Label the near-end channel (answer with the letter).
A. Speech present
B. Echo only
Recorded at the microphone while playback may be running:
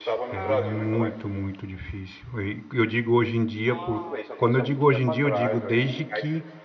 A